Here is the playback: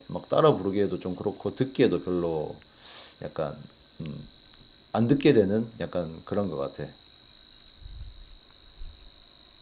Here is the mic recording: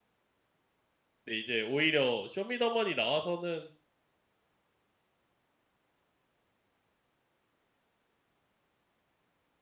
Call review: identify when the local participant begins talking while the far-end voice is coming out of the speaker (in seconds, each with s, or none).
1.2 s